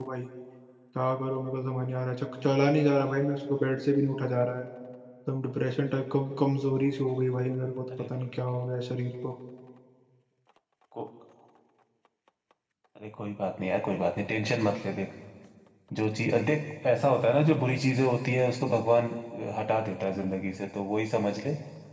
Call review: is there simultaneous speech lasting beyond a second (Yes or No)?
No